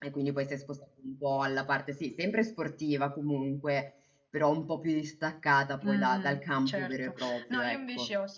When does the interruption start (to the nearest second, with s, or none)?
6 s